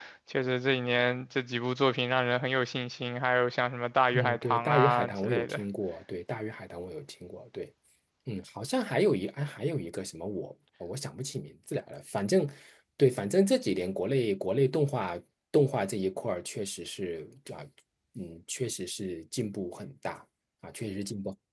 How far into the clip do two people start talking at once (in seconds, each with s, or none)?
4.1 s